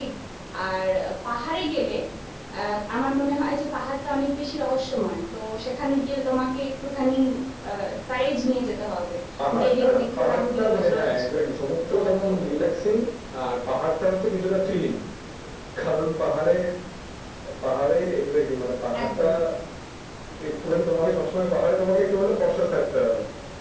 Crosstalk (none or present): present